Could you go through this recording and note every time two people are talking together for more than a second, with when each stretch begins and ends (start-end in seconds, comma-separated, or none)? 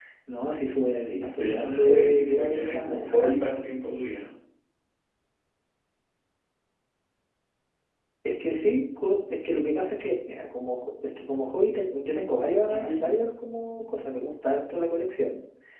1.1-3.5